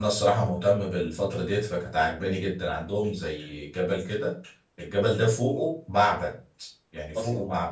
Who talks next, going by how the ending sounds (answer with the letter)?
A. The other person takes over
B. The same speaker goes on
B